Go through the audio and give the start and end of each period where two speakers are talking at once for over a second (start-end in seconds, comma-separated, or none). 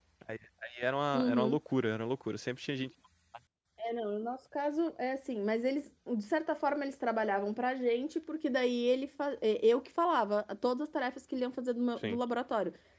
none